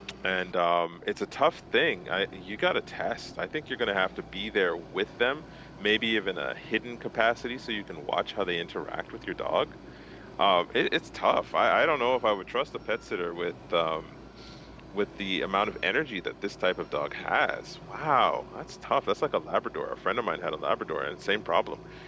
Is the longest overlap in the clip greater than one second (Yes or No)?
No